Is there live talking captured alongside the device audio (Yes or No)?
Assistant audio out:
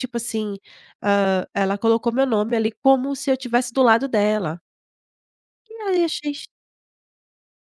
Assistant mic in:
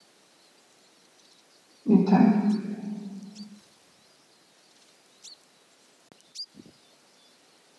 Yes